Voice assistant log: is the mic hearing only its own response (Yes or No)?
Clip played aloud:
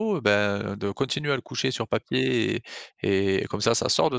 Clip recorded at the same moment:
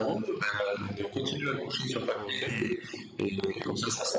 No